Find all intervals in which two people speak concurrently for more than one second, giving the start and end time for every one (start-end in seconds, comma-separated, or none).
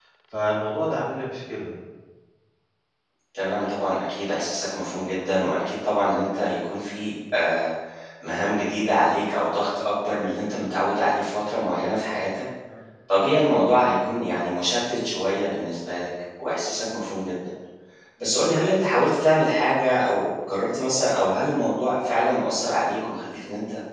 none